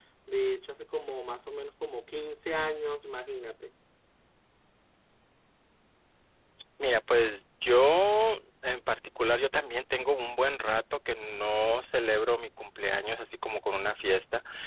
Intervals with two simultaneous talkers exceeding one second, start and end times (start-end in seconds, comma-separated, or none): none